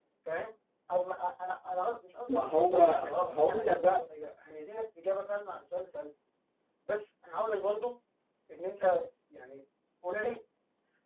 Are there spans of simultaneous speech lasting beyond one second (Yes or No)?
Yes